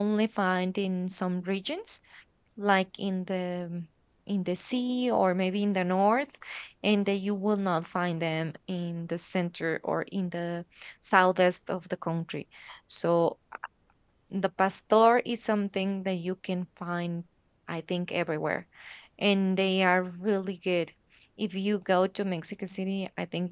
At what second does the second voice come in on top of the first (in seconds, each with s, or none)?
none